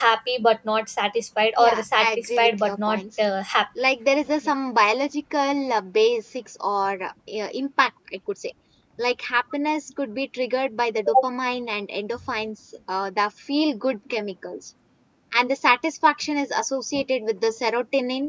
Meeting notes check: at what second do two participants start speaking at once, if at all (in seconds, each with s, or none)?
1.6 s